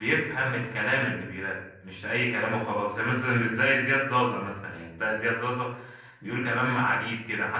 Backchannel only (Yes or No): Yes